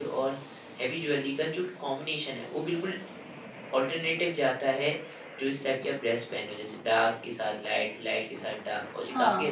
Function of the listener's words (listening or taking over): listening